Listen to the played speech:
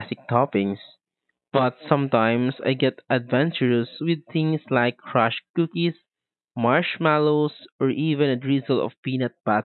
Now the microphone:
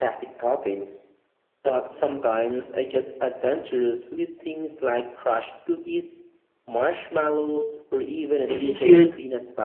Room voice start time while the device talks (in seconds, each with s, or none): 8.5 s